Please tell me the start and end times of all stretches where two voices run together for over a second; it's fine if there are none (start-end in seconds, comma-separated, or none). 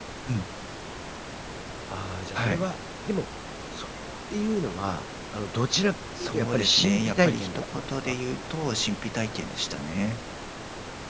6.2-8.2